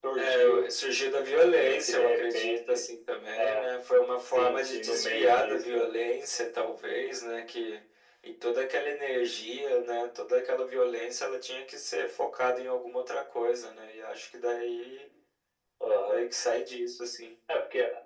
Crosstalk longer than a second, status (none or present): present